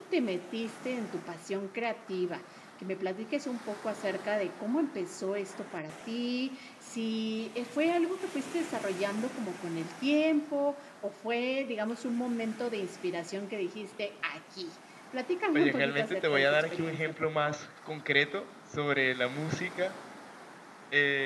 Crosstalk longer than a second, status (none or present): present